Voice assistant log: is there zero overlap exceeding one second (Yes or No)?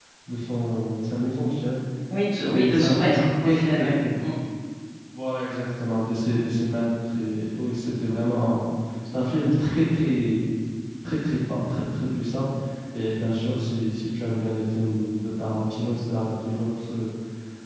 No